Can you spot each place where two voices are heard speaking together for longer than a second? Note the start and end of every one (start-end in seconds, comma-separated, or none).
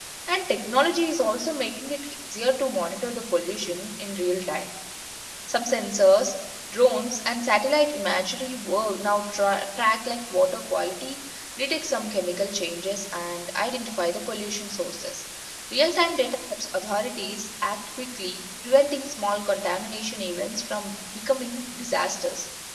none